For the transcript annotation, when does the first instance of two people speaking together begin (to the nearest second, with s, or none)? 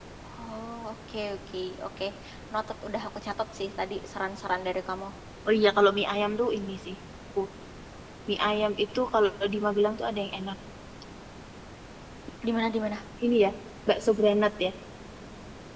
none